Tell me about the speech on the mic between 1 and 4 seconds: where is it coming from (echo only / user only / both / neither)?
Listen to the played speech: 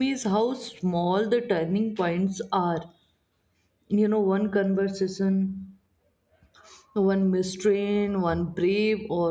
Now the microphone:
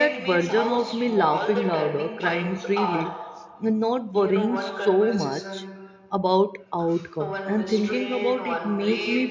both